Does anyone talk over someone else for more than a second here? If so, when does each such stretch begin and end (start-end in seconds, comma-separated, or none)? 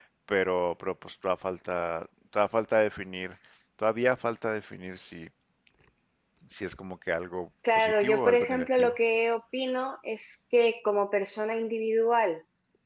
7.7-9.0